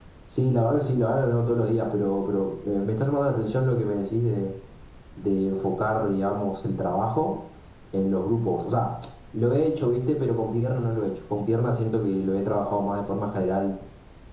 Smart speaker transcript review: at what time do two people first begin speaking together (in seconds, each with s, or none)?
none